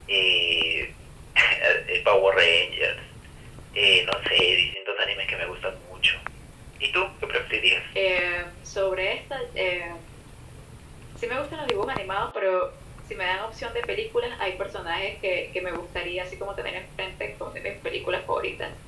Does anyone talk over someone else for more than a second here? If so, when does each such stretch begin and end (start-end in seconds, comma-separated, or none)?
none